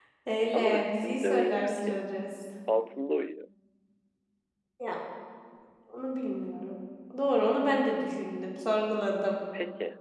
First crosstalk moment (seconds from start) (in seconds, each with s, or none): 0.5 s